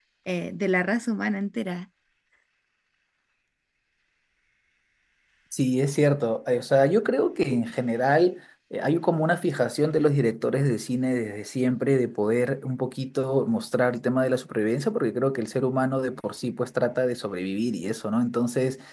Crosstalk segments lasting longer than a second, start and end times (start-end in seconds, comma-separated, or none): none